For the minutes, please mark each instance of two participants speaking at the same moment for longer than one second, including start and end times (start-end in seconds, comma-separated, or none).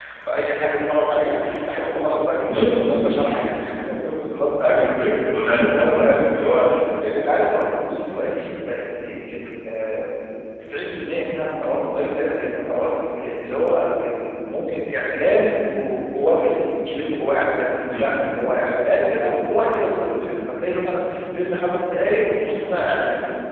none